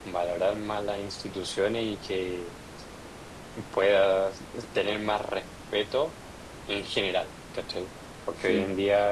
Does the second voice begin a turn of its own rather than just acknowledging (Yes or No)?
No